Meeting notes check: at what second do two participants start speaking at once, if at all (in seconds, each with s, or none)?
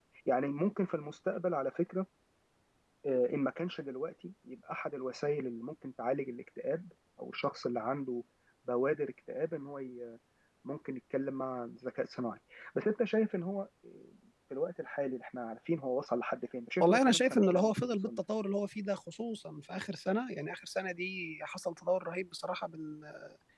16.8 s